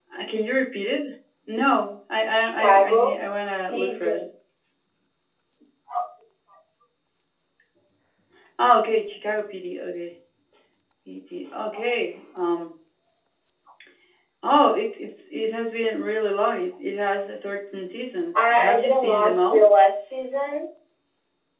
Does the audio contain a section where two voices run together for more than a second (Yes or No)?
Yes